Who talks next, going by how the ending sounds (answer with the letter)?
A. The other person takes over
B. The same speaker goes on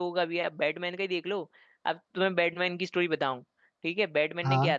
B